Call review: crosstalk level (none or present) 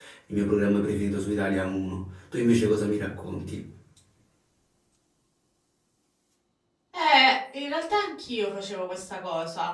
none